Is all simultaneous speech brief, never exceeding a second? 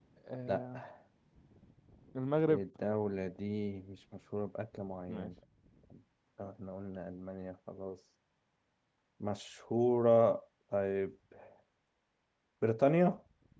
Yes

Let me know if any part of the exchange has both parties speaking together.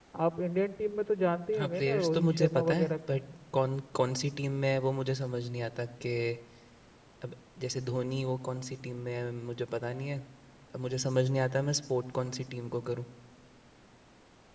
Yes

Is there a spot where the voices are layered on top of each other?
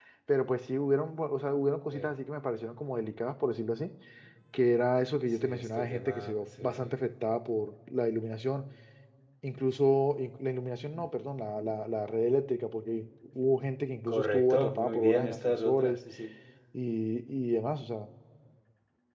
Yes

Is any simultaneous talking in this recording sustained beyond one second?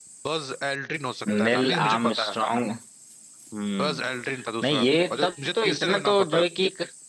Yes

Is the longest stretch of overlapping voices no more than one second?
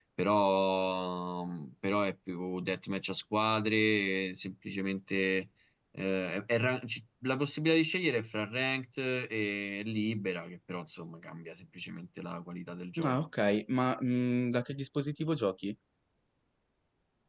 Yes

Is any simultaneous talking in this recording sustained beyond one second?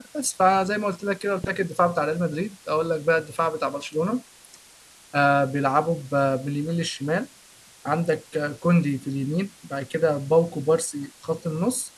No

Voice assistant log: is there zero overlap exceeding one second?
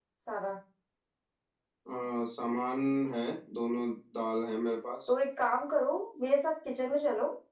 Yes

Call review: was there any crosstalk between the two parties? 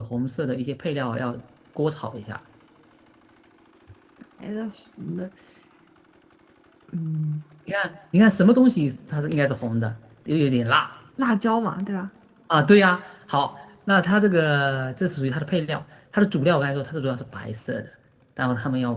No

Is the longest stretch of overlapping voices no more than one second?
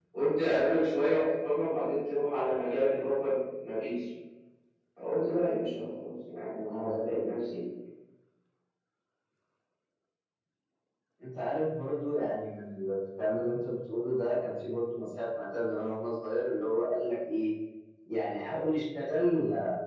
Yes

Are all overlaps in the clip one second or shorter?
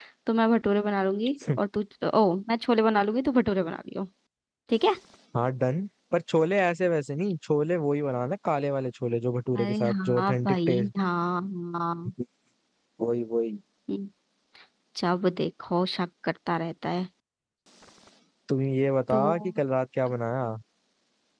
No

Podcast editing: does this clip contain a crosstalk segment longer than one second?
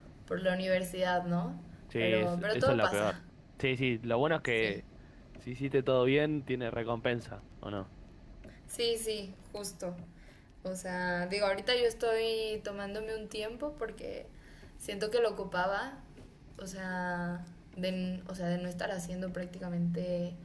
Yes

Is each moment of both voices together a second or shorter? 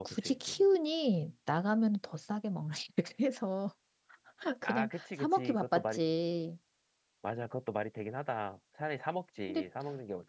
No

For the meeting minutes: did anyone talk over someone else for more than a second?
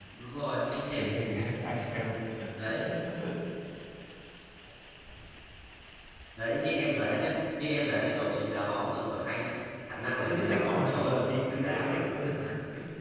Yes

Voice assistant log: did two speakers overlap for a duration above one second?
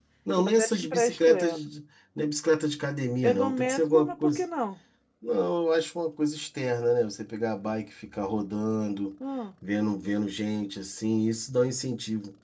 Yes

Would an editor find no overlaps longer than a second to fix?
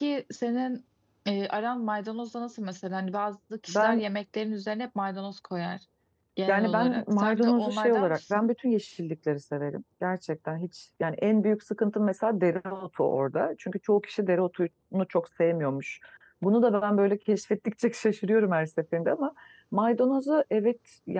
No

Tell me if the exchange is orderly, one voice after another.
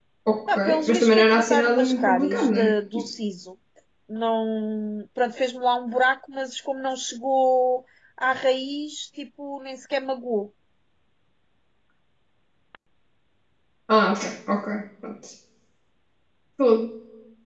No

